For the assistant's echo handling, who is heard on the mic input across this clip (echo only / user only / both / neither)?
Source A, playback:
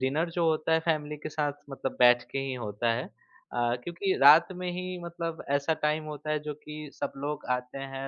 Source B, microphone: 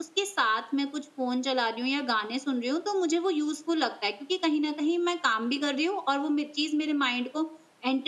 user only